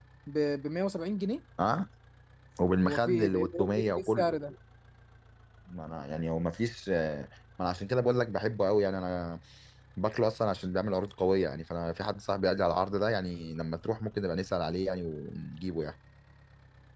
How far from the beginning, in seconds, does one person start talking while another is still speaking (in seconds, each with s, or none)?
2.8 s